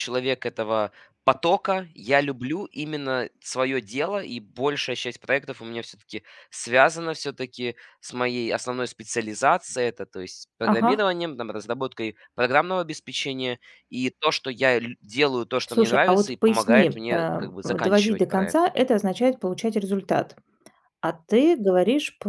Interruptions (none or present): present